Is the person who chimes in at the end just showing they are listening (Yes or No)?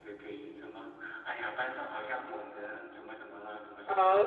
No